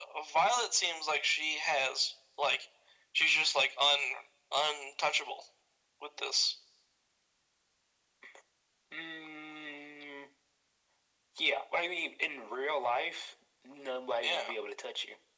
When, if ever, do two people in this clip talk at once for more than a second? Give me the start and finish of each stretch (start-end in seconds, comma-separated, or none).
none